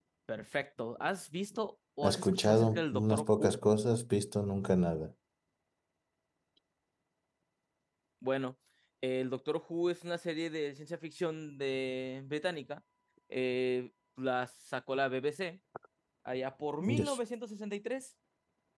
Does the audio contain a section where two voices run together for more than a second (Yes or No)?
Yes